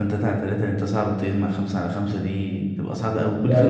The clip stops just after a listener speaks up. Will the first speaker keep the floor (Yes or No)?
Yes